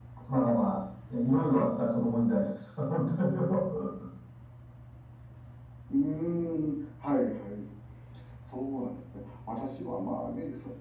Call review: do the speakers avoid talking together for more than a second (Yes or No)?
Yes